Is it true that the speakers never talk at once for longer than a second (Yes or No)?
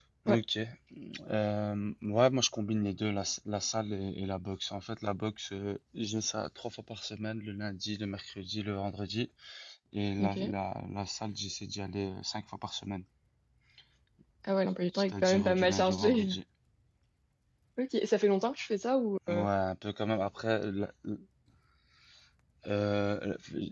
No